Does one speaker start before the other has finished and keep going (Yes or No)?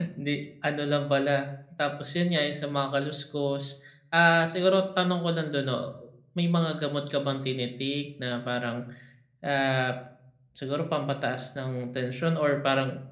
No